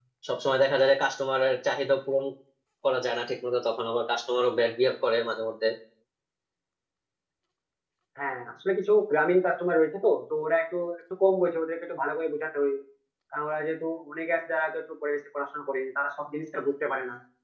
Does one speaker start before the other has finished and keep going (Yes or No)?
No